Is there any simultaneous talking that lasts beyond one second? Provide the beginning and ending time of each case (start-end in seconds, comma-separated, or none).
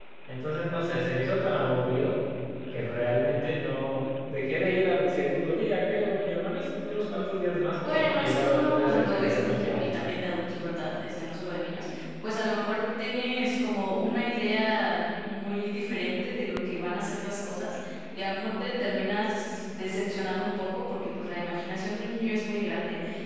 7.8-9.9